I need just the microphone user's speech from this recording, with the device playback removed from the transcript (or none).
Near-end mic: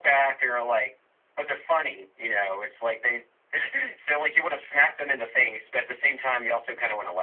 none